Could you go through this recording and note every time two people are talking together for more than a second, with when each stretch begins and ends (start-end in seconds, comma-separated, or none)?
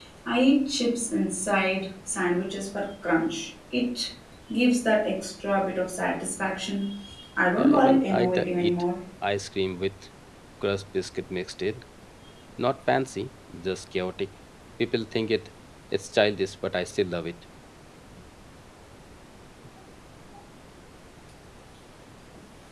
7.6-8.8